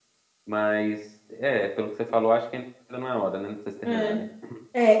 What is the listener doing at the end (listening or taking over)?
taking over